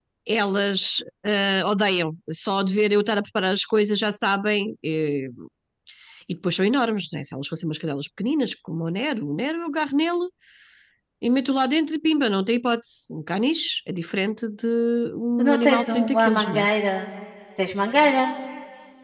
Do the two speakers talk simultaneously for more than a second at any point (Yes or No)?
Yes